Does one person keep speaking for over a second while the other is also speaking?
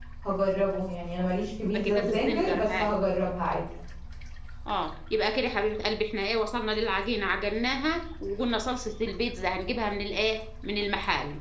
Yes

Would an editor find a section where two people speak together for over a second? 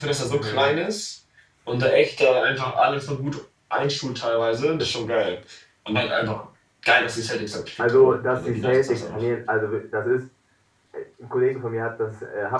Yes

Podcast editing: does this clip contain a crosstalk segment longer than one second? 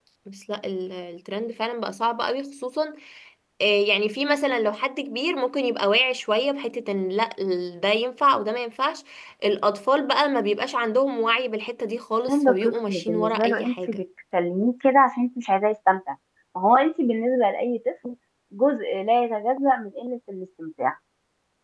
Yes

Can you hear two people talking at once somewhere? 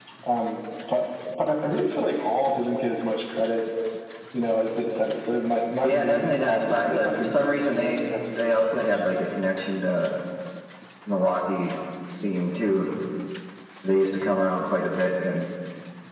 Yes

